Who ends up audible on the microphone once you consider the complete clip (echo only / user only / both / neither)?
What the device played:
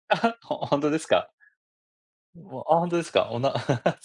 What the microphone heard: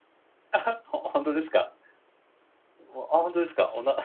echo only